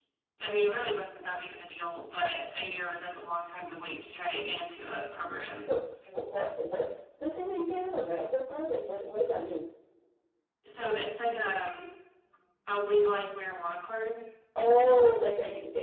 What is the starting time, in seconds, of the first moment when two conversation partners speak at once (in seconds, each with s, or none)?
none